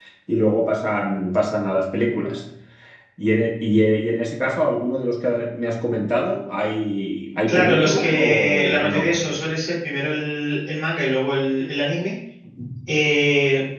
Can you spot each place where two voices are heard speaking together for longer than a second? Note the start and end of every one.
7.5-9.3

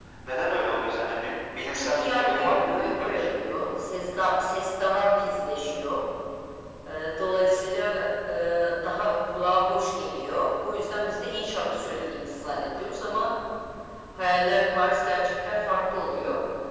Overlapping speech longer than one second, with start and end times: 1.7-3.3

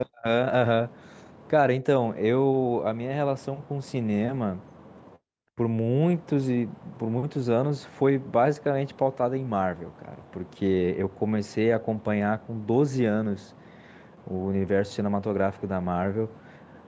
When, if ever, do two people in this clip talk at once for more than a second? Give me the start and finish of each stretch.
none

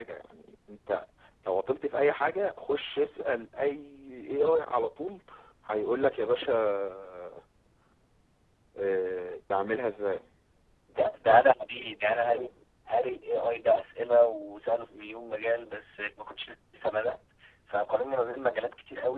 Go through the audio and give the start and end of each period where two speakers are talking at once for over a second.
none

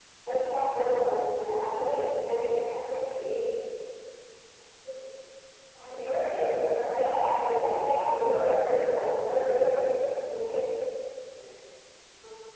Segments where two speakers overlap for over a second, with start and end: 6.9-8.8

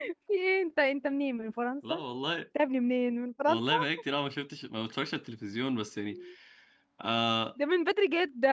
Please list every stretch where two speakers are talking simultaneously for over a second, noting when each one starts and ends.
none

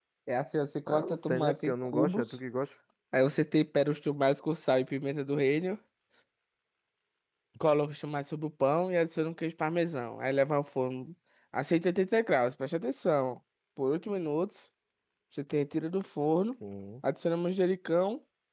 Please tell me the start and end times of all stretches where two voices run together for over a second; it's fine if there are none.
0.9-2.4

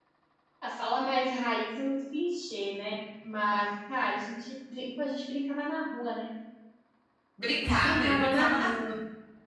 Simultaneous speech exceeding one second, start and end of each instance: 7.7-8.9

